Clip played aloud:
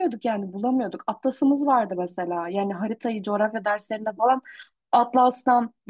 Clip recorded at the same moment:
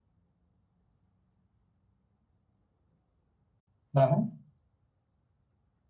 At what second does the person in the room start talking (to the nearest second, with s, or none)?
4 s